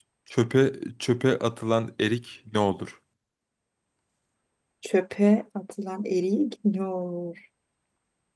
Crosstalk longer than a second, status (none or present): none